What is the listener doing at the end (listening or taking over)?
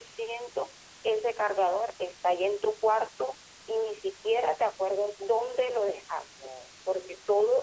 listening